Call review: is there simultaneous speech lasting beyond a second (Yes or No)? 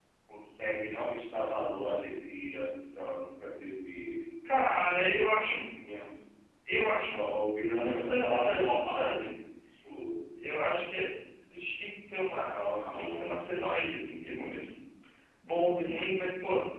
Yes